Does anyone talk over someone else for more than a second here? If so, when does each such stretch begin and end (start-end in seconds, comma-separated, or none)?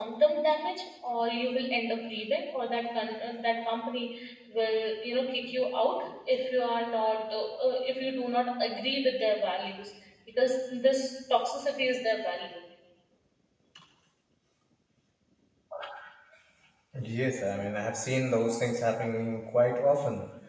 none